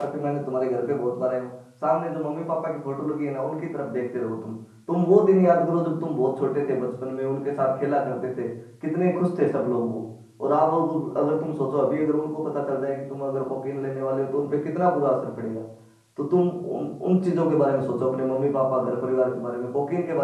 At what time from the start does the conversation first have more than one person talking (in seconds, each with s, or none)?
none